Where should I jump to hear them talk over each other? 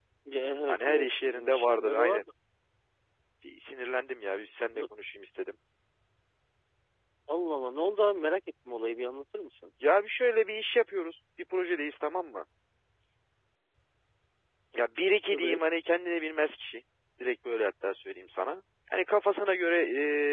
0.7 s

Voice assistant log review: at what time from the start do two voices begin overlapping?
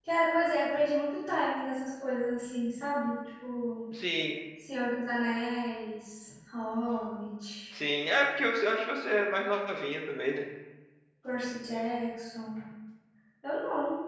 none

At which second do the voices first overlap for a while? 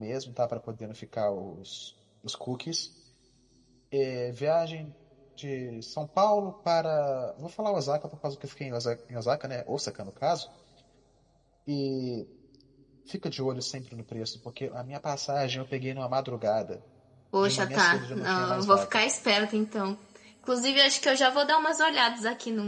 17.4 s

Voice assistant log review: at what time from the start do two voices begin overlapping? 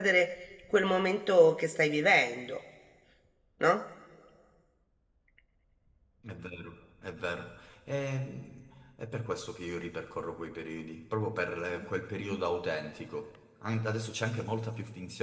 none

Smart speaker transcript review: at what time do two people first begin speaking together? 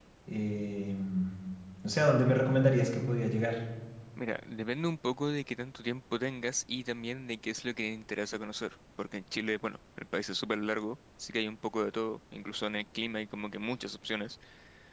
none

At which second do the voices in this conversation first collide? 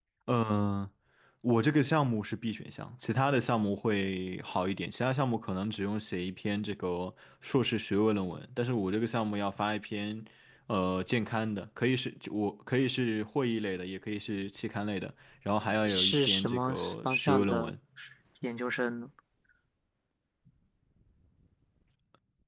15.8 s

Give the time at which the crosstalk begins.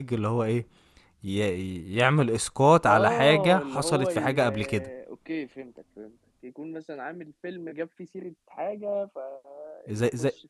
2.9 s

